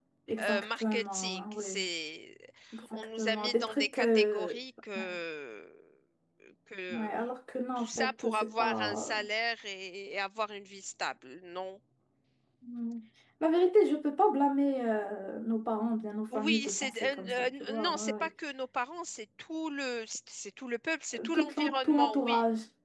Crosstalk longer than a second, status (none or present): present